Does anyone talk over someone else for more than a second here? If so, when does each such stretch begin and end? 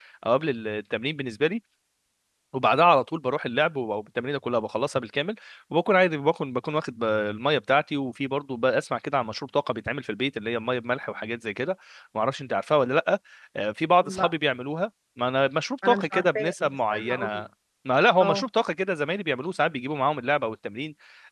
15.8-17.4

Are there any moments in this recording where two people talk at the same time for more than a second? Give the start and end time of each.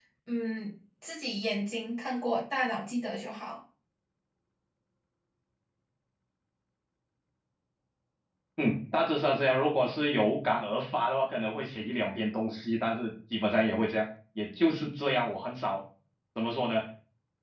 none

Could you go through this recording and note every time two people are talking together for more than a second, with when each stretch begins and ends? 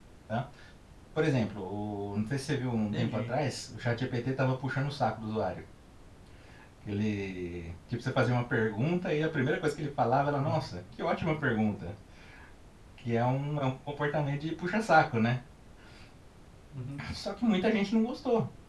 none

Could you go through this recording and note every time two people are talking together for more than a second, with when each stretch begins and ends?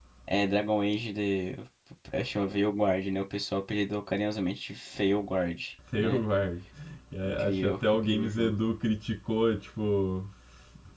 7.2-8.6

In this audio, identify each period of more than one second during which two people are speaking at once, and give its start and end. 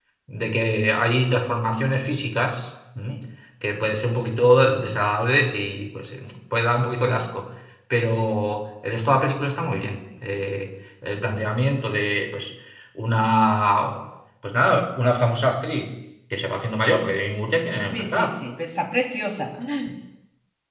none

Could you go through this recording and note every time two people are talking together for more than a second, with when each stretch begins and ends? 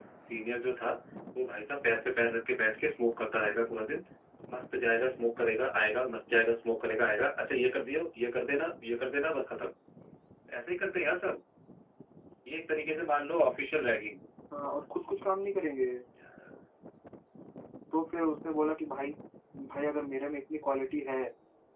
none

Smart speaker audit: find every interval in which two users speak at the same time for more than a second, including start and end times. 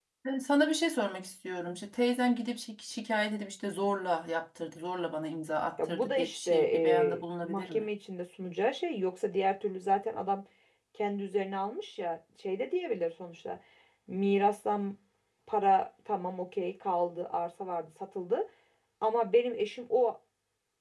5.8-7.8

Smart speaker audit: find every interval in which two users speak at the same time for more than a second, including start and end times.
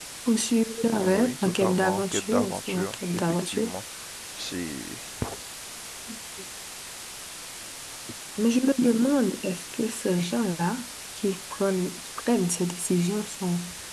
1.2-3.7

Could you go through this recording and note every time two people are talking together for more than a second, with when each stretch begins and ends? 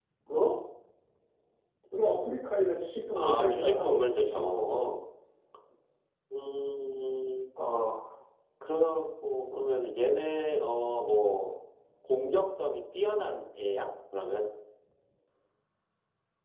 3.1-4.5

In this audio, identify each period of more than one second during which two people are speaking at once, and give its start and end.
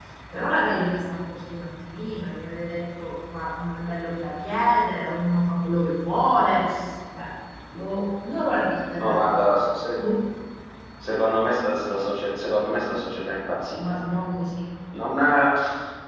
none

